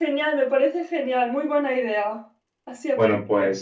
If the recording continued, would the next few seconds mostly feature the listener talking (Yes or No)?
Yes